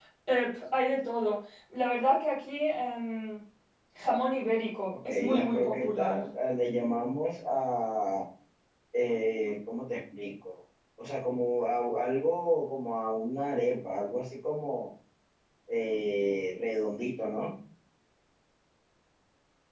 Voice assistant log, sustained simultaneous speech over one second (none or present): present